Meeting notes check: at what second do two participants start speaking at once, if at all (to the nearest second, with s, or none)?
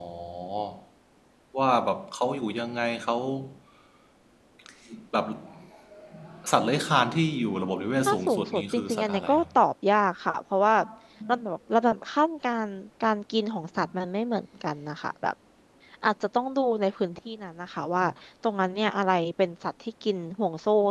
8 s